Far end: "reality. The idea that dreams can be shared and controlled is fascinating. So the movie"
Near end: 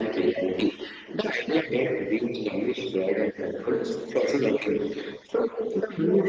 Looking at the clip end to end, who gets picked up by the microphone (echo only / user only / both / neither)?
echo only